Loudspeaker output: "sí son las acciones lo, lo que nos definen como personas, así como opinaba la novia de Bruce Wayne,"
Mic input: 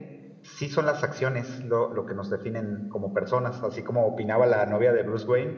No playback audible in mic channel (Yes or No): No